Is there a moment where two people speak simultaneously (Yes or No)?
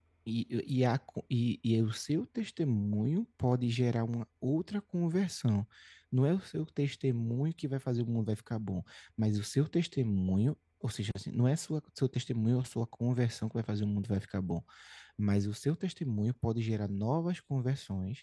No